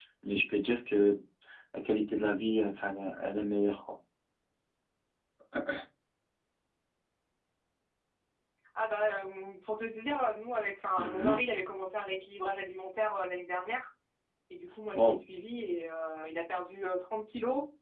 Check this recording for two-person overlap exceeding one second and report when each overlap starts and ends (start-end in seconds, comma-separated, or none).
none